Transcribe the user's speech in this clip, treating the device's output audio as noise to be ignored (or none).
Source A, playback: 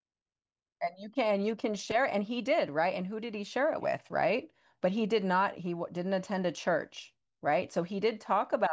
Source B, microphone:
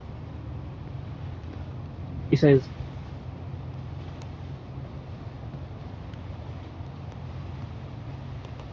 he says,